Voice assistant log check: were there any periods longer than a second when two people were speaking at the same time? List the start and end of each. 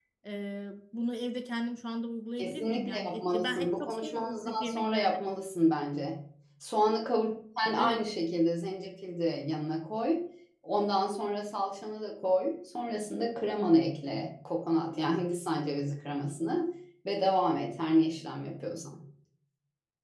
2.4-5.2

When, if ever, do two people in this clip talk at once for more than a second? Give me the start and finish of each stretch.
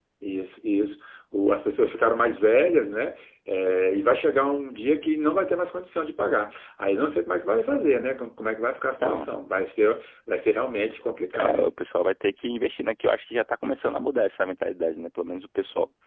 none

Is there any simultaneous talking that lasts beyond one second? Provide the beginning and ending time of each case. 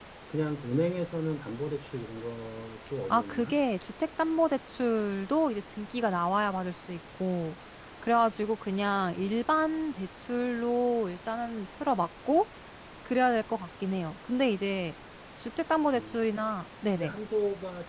none

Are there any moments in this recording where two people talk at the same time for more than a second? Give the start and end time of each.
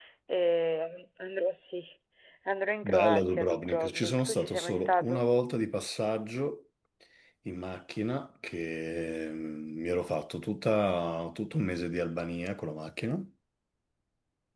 2.8-5.2

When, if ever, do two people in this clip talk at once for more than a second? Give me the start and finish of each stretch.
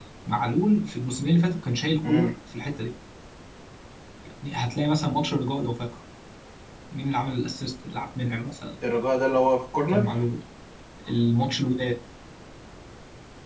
none

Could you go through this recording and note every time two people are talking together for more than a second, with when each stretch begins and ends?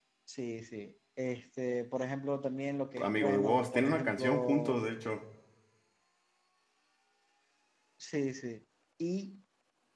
3.0-4.8

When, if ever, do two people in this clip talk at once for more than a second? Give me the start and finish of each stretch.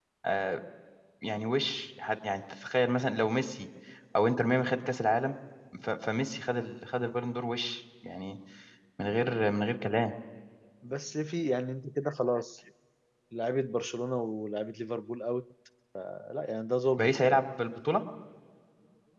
none

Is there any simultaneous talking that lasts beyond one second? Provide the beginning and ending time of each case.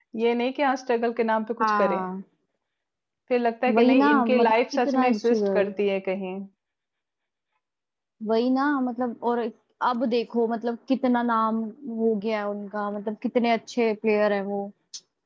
3.7-5.7

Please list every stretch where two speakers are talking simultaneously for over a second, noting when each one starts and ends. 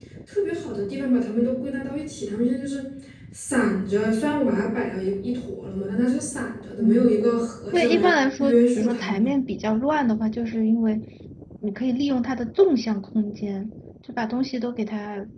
7.7-9.3

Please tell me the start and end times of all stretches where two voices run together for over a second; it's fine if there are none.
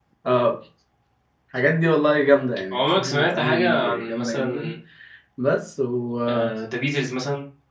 2.7-4.7

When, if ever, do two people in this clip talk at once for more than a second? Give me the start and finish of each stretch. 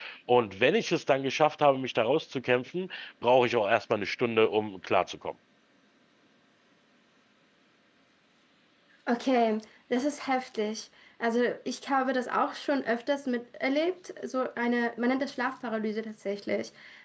none

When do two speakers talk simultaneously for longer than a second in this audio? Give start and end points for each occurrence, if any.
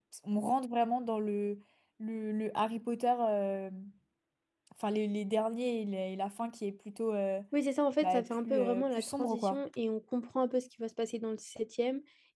8.0-9.6

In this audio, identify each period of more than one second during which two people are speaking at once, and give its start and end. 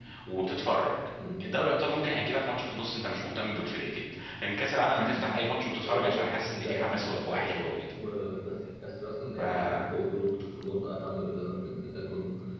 5.8-7.6

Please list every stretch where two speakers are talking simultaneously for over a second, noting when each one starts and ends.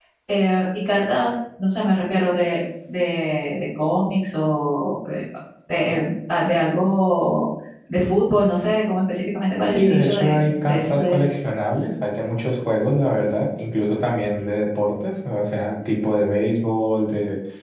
9.7-11.2

